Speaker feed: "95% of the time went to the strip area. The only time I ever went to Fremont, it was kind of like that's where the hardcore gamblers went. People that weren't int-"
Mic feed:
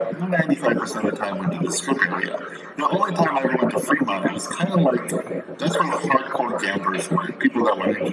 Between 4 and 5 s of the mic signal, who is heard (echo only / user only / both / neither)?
echo only